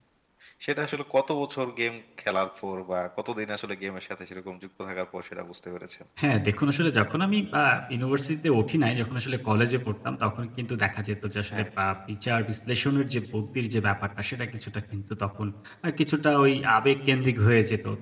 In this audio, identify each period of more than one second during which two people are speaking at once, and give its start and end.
none

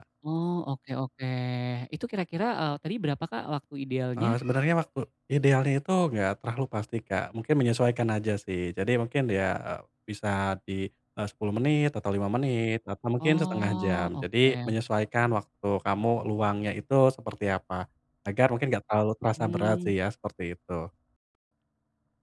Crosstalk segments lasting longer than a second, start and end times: 13.2-14.7

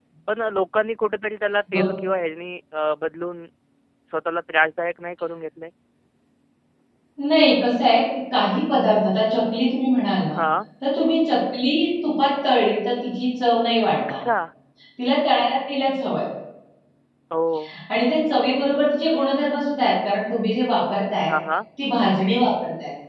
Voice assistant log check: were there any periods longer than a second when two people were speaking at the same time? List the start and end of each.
none

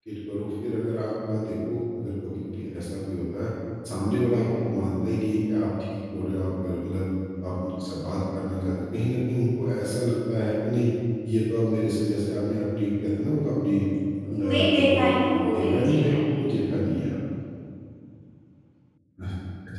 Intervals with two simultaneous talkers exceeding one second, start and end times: 14.5-16.5

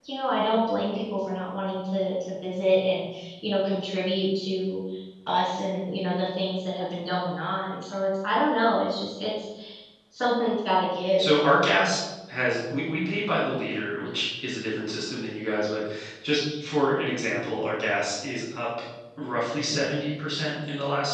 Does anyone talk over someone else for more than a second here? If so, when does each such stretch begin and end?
none

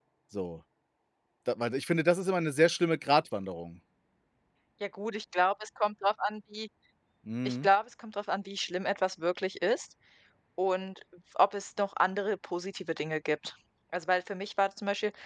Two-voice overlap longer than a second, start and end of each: none

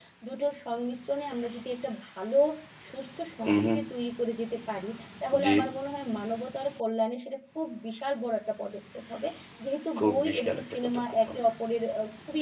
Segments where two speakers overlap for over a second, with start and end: 10.0-11.5

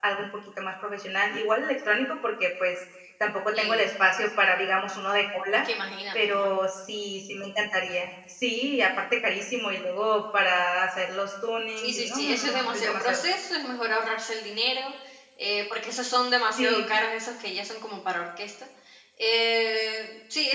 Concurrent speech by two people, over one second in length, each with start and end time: 11.8-13.2

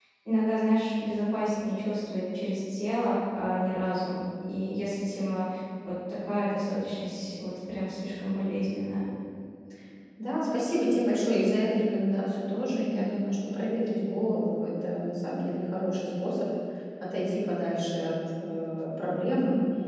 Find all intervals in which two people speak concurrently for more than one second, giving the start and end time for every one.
none

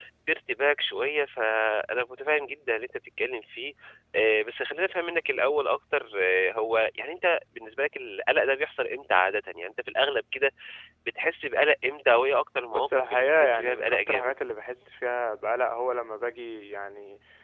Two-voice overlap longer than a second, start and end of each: 12.7-14.3

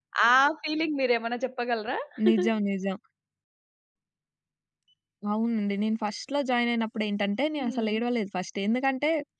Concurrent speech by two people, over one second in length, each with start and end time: none

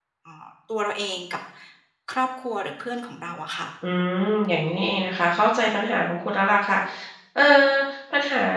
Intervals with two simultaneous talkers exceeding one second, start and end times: none

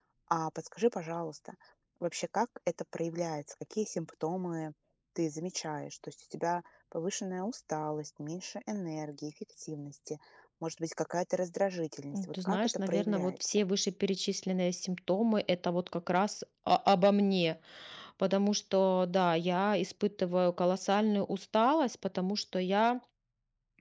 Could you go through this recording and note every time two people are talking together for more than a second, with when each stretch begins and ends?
12.1-13.6

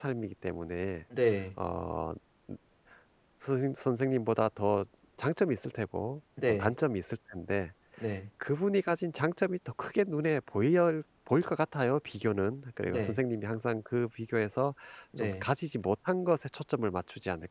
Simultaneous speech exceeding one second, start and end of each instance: none

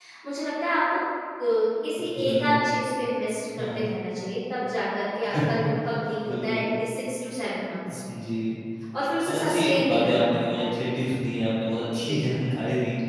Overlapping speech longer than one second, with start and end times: 9.3-10.7

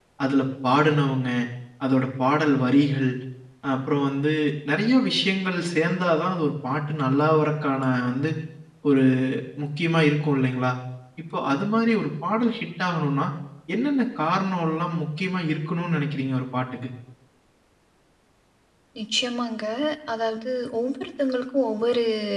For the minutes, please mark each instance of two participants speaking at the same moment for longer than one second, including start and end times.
none

